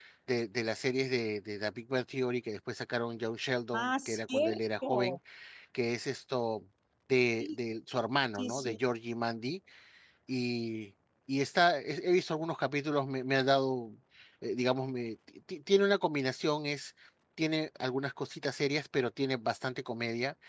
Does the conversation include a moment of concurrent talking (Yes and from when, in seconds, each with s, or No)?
Yes, from 3.7 s